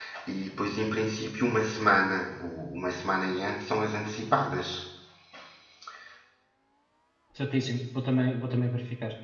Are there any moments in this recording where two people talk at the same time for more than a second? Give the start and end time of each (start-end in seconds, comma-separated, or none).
none